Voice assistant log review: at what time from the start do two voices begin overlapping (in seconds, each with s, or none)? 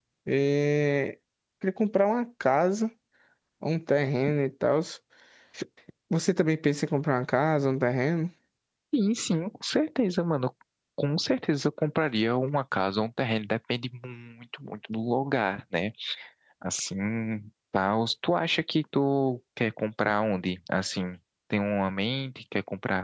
none